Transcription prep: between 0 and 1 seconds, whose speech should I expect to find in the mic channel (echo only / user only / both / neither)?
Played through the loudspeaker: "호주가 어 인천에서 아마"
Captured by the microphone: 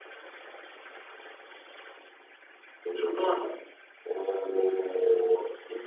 neither